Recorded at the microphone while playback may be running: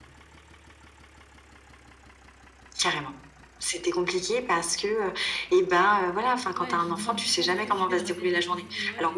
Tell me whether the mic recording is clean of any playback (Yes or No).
No